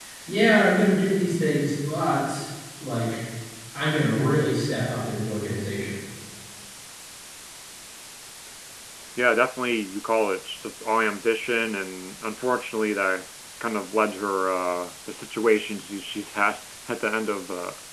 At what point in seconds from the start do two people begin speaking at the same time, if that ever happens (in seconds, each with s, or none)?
none